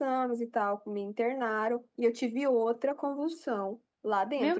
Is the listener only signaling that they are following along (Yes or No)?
Yes